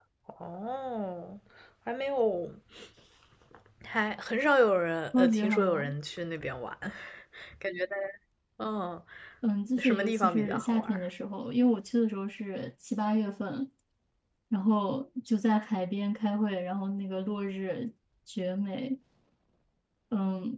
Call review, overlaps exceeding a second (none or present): present